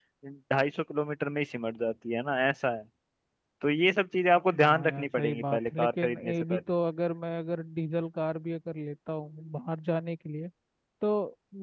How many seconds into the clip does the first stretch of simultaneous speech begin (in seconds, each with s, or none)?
4.5 s